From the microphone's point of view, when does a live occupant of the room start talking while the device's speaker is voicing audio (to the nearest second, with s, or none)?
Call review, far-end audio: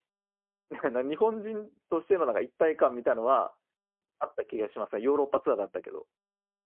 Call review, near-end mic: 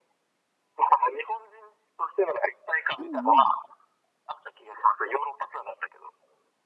3 s